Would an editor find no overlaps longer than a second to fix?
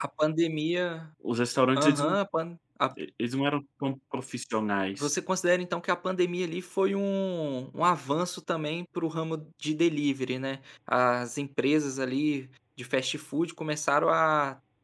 Yes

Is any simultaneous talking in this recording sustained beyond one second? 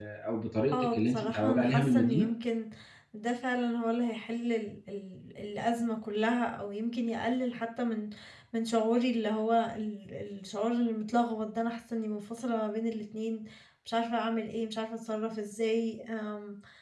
Yes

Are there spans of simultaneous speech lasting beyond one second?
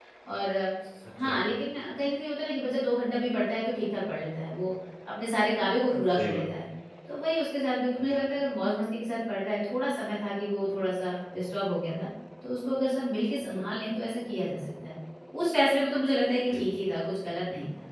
No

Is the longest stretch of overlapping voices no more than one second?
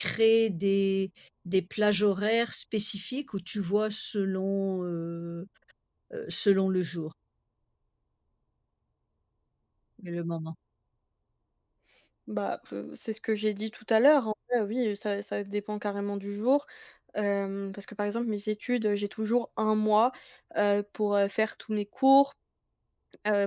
Yes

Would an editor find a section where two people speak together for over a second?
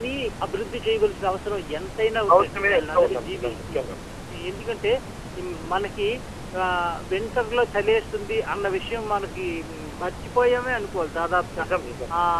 Yes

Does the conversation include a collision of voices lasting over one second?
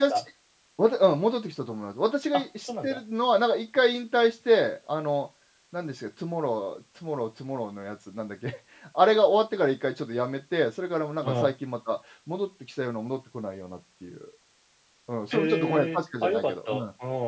Yes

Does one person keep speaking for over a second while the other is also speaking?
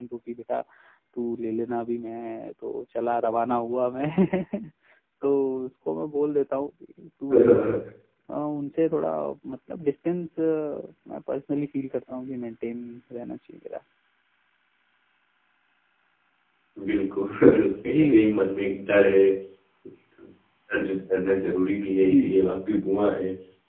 No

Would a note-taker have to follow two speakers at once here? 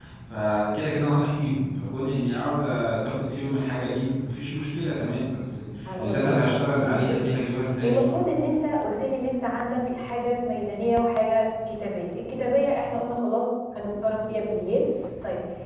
Yes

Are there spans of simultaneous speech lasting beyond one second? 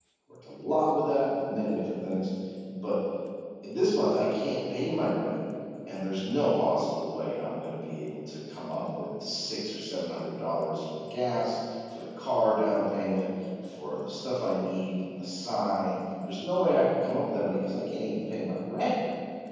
No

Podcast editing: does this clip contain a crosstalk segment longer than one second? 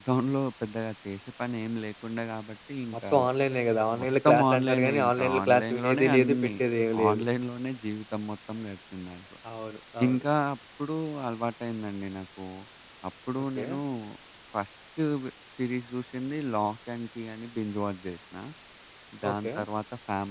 Yes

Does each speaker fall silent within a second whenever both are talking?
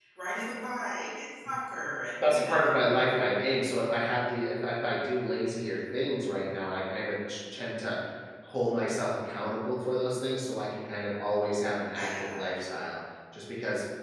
Yes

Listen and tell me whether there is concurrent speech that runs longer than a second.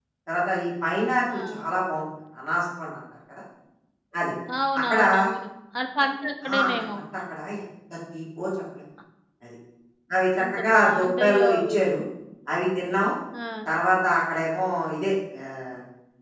Yes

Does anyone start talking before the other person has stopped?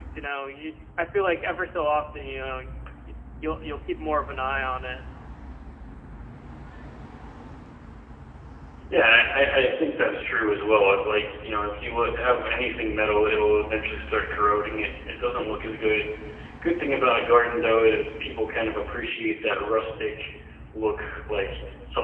No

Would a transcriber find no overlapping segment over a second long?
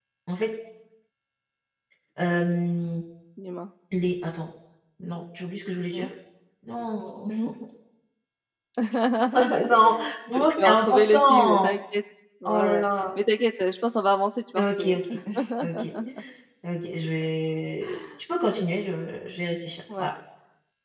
No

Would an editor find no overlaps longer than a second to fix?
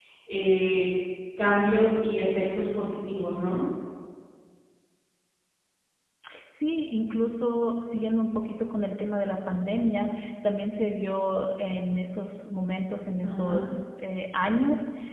Yes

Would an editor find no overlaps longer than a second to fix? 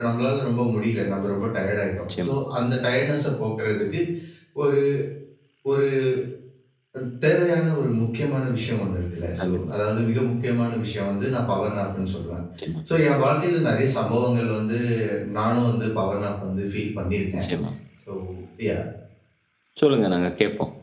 Yes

